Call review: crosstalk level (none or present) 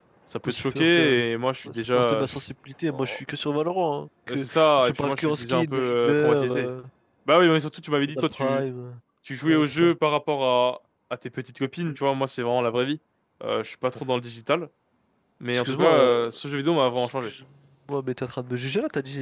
present